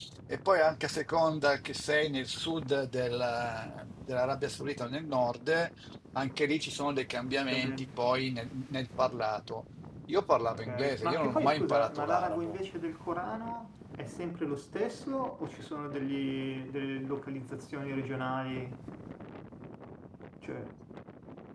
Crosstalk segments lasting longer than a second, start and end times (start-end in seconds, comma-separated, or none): 10.6-12.6